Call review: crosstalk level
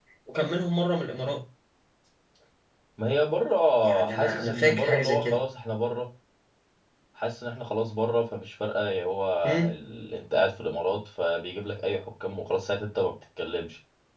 present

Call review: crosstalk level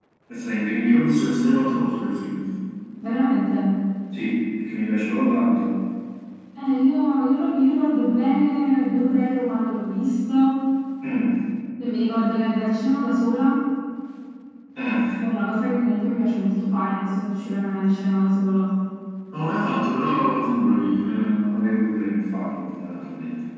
none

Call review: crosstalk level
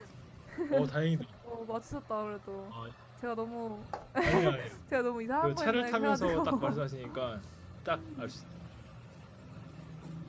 present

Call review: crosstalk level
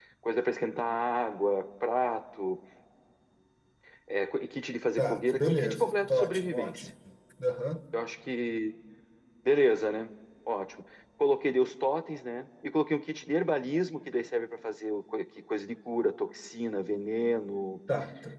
present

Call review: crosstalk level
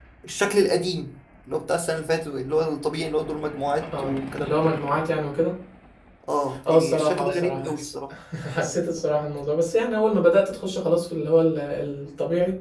present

